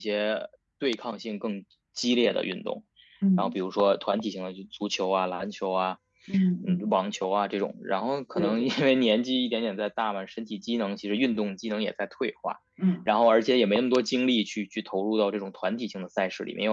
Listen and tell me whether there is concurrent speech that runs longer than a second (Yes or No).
No